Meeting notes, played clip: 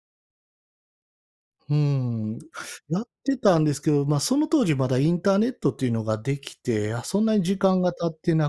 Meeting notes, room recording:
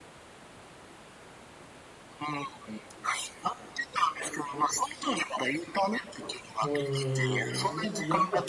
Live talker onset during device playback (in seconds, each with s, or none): 6.6 s